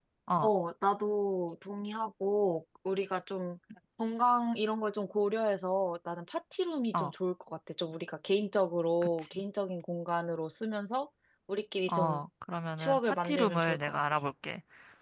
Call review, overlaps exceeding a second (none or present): present